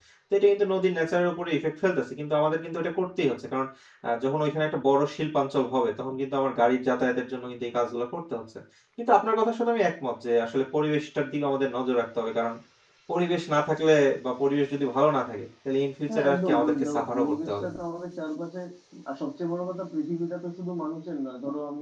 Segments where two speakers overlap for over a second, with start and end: 16.1-17.6

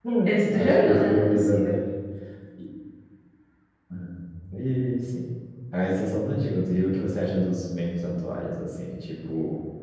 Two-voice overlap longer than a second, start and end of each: 0.5-1.8

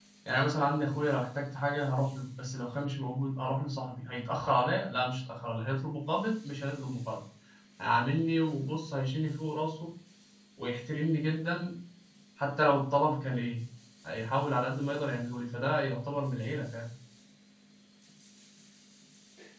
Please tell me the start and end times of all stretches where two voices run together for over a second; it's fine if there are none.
none

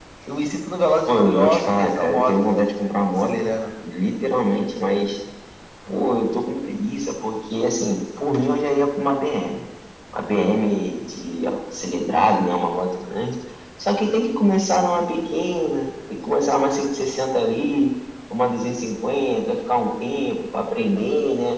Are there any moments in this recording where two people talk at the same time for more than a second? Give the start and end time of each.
1.1-2.3

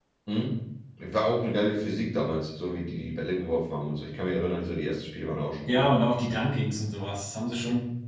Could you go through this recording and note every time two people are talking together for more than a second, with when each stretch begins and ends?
none

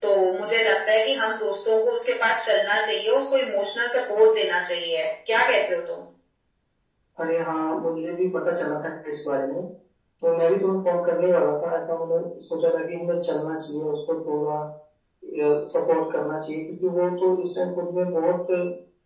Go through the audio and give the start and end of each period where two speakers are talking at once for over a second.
none

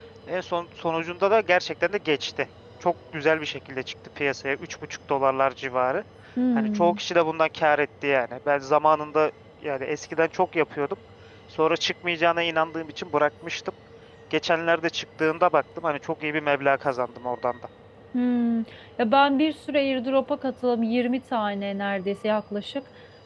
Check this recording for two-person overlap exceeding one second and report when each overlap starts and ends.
none

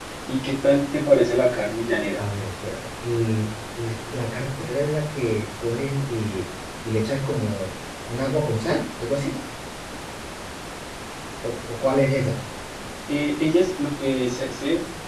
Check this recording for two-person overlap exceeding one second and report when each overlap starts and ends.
none

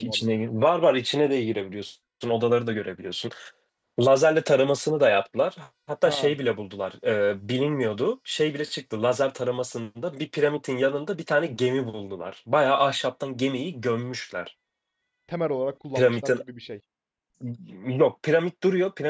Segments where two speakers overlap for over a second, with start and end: none

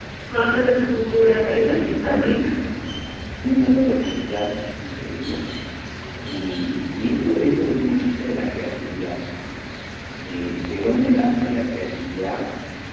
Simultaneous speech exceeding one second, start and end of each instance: 1.2-2.6

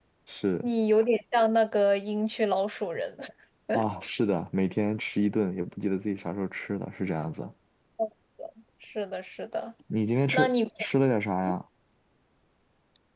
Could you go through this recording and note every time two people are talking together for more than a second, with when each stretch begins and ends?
none

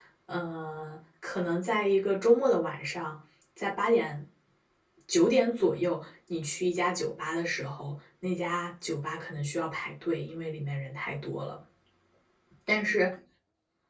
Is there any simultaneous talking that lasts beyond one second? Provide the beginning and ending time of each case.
none

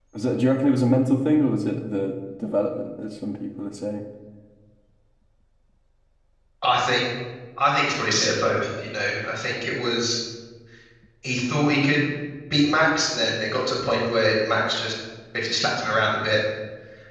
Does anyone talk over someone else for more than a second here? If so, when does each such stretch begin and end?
none

